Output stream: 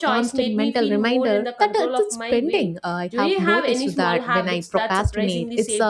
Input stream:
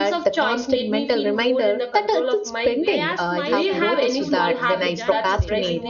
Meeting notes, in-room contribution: present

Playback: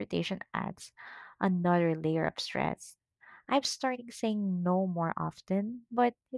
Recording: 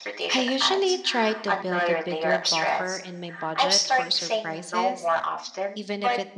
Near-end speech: present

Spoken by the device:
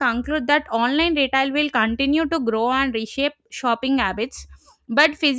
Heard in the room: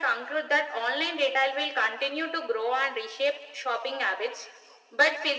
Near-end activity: none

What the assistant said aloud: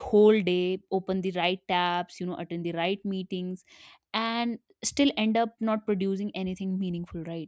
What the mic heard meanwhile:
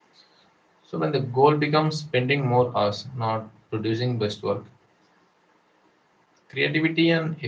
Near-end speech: present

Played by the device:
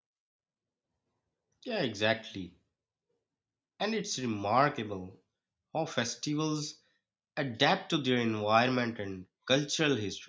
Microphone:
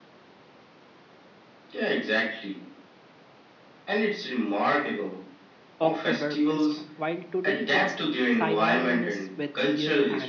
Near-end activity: present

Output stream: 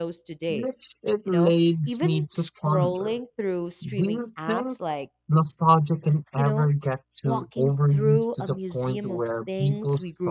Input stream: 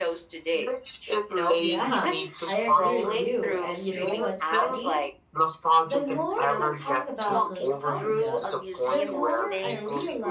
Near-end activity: present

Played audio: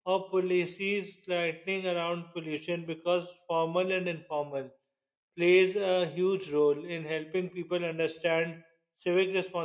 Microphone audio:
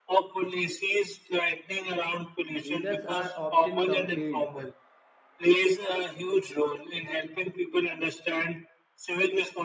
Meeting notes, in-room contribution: present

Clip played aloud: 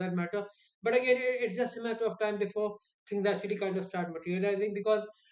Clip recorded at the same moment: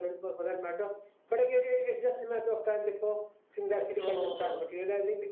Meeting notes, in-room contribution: present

